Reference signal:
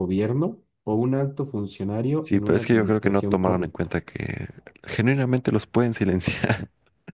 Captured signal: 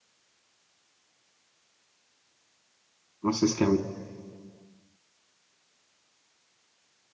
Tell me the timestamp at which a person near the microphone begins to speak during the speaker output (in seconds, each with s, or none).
3.2 s